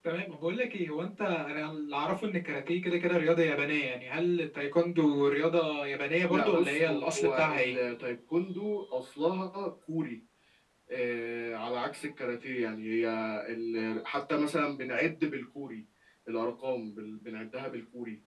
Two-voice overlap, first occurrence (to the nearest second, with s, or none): 6 s